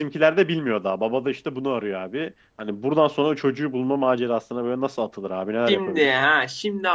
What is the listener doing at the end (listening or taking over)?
taking over